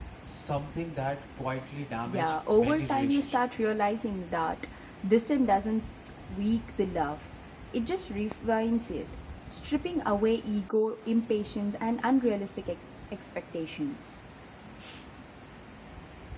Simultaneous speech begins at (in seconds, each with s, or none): 2.0 s